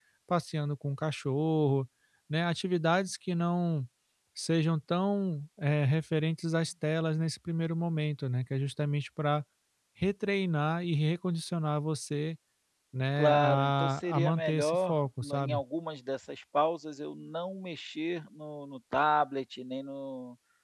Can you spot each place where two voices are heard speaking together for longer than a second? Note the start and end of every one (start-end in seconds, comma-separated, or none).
13.2-15.6